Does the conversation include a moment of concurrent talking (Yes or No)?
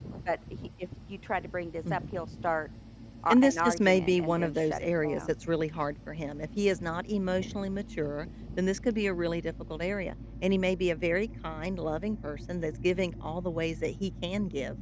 Yes